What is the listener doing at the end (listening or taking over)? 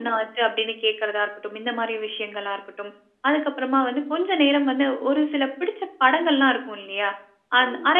listening